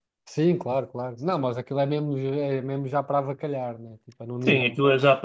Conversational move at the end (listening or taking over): taking over